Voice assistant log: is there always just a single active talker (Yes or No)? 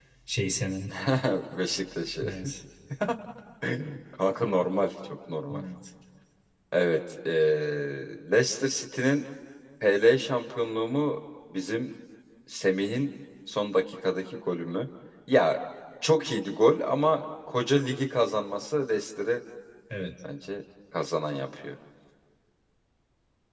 Yes